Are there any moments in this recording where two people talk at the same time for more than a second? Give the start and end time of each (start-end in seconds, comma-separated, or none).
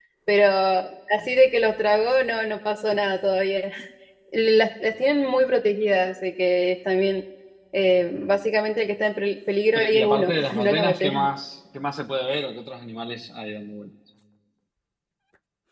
9.8-11.3